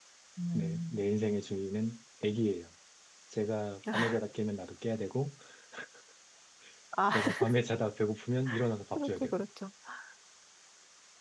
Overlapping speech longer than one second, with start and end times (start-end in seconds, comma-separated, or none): none